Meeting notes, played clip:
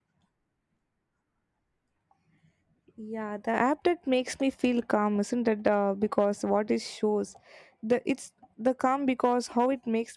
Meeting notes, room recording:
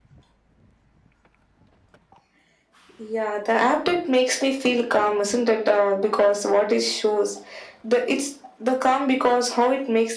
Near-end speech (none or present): none